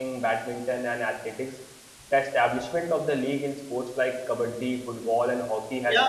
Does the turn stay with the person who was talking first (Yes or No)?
No